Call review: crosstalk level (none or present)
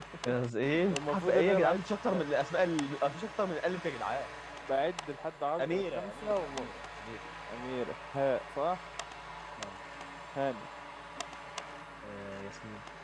present